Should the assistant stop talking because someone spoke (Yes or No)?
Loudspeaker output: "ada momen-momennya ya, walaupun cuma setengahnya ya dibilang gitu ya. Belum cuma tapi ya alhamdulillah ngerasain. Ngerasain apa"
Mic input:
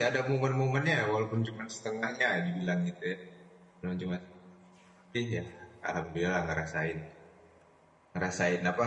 No